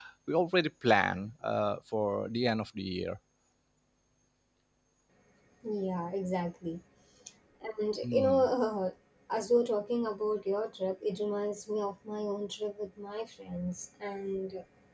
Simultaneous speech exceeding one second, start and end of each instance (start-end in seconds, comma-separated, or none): none